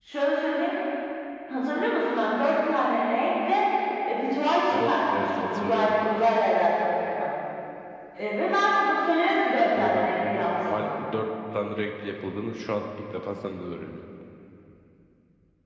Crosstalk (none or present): present